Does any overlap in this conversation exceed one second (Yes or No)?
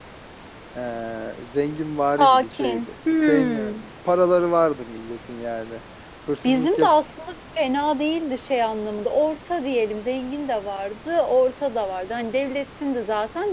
Yes